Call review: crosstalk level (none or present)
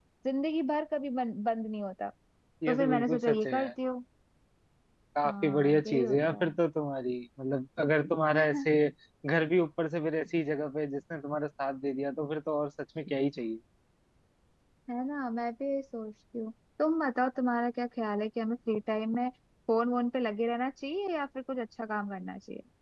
present